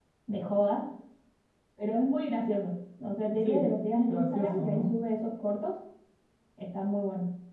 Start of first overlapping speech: 3.3 s

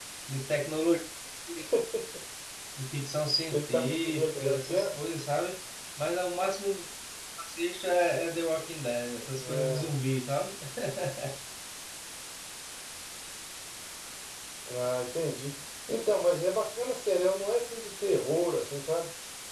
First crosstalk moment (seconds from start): 3.5 s

